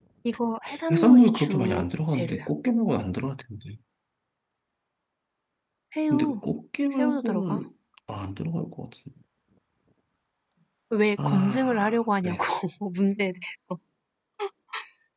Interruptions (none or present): present